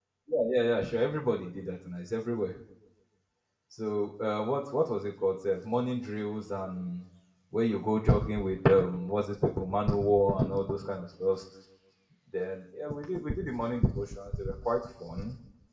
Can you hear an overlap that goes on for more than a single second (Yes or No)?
No